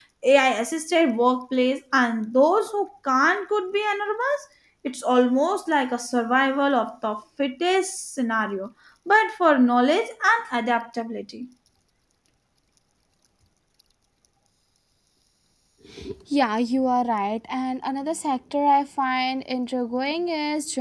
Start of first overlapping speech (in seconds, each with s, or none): none